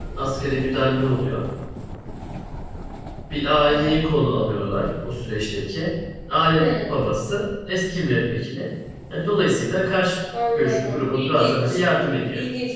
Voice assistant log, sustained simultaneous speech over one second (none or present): present